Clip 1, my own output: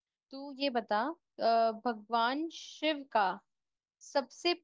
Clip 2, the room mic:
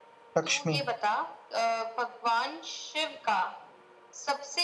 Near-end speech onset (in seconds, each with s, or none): 0.4 s